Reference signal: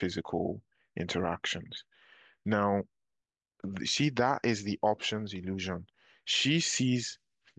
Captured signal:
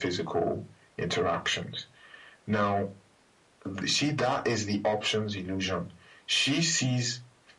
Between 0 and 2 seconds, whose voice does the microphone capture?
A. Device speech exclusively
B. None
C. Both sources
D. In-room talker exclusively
A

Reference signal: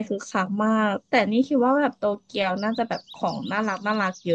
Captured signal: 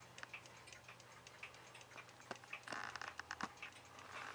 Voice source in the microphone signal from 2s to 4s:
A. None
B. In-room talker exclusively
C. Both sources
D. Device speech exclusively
A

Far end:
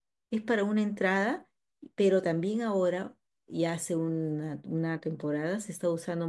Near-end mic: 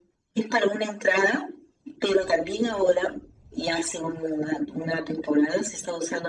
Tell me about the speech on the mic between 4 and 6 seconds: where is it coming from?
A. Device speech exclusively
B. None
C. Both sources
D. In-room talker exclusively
A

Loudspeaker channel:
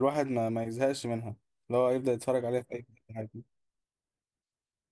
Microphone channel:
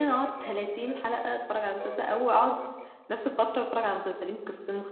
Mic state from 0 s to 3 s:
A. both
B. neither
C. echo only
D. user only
A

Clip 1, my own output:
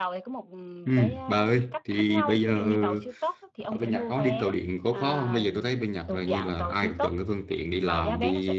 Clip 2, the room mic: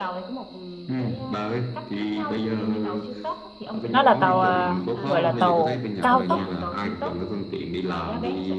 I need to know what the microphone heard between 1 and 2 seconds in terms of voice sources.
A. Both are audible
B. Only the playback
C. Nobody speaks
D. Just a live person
B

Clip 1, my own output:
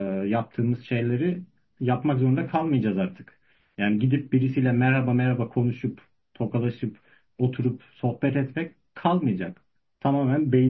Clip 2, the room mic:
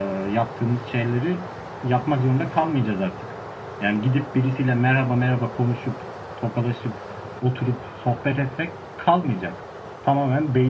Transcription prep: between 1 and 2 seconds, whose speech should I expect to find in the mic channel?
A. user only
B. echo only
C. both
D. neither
B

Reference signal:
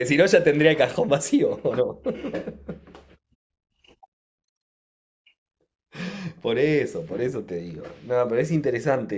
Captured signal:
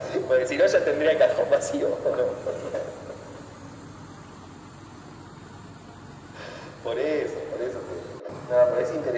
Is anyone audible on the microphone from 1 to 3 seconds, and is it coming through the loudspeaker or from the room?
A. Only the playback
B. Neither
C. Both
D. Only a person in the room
A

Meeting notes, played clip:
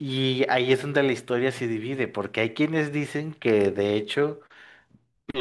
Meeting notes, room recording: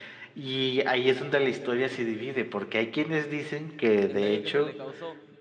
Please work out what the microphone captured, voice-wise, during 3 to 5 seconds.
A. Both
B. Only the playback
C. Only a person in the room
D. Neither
A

